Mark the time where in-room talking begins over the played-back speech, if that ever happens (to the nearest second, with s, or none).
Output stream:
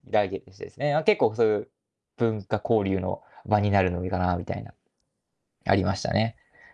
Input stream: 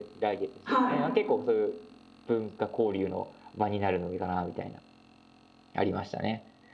1 s